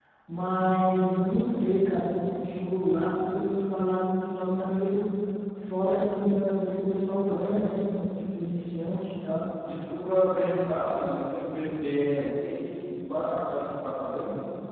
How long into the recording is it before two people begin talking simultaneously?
none

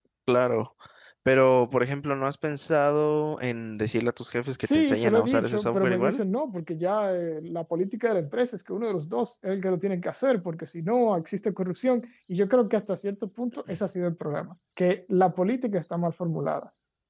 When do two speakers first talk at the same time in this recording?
5 s

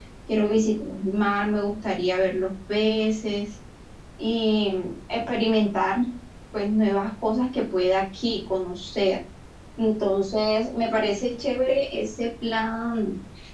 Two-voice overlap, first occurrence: none

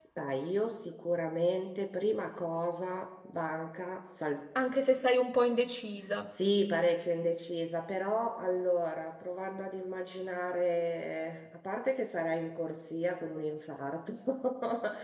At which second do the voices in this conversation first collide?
none

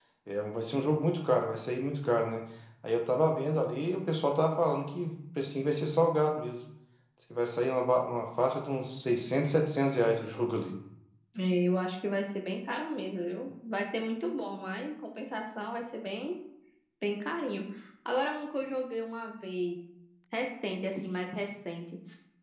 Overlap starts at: none

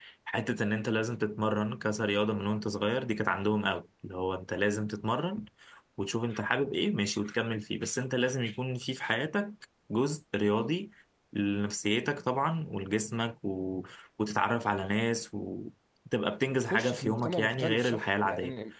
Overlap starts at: 16 s

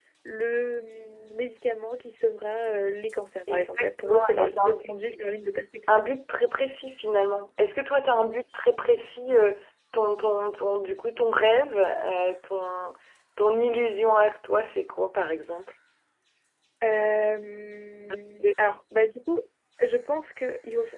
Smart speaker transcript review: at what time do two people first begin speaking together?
4 s

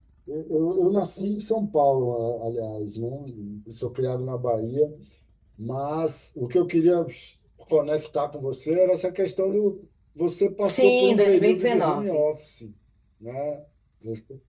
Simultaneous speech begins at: 11 s

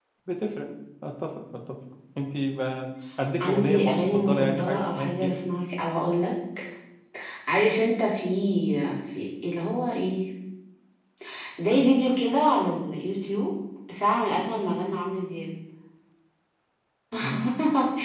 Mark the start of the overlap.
3 s

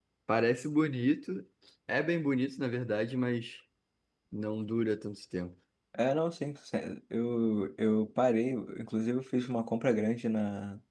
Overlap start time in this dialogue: none

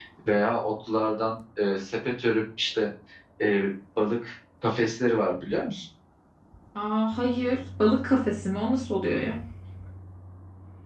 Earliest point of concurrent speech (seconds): none

